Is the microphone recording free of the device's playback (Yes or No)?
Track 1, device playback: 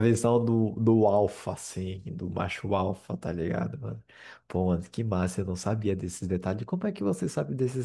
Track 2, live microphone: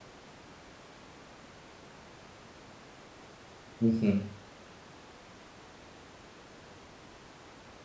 Yes